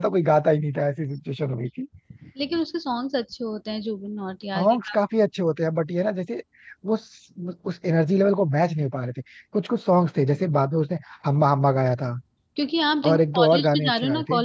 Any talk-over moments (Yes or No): Yes